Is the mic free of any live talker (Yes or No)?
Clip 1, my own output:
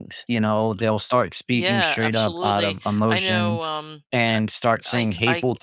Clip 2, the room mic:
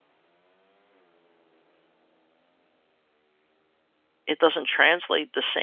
No